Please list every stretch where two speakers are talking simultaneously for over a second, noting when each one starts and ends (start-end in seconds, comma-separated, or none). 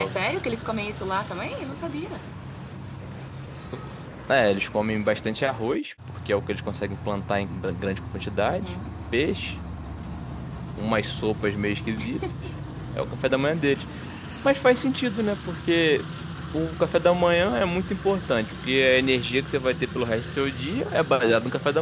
none